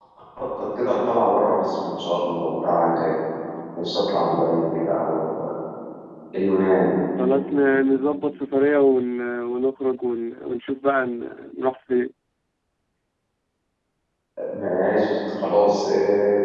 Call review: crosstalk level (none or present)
none